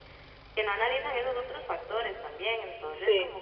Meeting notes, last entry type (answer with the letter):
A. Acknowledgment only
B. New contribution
A